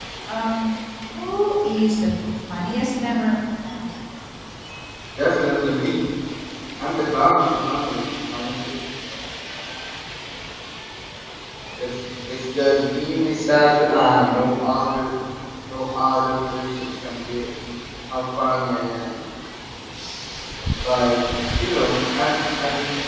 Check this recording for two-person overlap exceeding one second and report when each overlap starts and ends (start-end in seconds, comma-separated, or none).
none